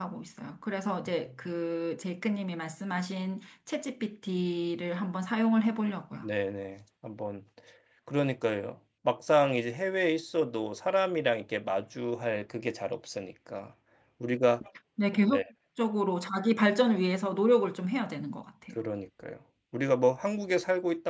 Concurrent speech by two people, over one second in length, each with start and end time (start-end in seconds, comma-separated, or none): none